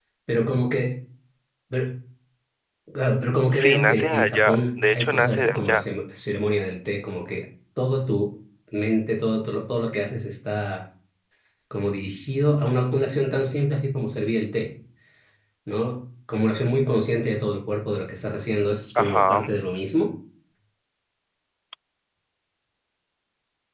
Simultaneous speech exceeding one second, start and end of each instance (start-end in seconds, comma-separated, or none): 3.5-5.8